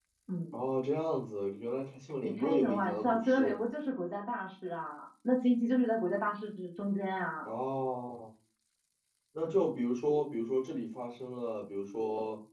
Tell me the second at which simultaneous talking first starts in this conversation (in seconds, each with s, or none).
2.2 s